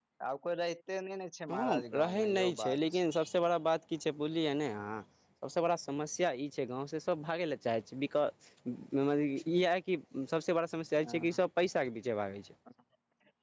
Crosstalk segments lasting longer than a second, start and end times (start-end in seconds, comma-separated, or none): 1.5-3.0